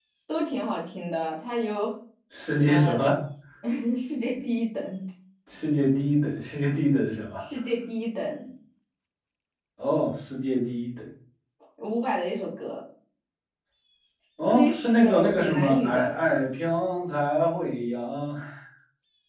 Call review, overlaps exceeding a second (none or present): present